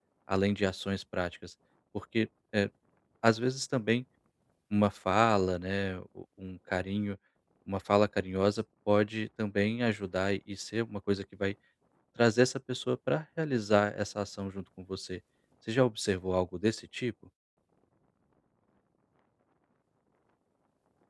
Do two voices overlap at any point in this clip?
No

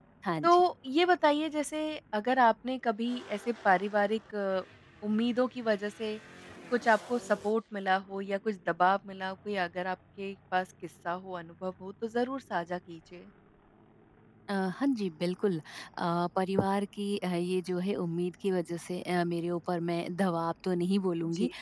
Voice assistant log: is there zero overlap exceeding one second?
Yes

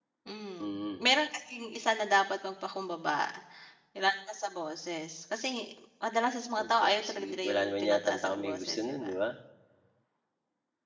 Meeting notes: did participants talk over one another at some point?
Yes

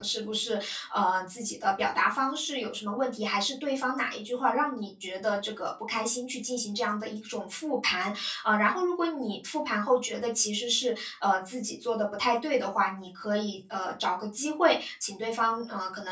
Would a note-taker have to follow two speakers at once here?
No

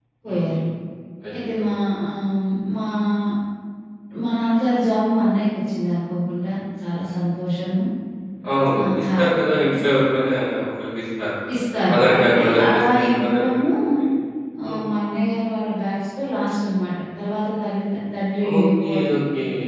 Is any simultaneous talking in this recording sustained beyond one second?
Yes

